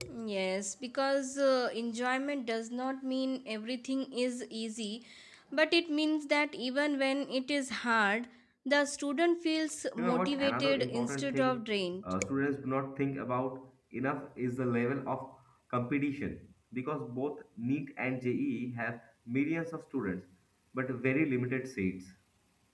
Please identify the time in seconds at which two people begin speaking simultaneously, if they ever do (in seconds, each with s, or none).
10.0 s